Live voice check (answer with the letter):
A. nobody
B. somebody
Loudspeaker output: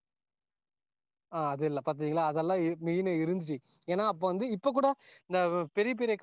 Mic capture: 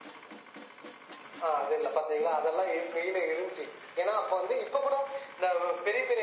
A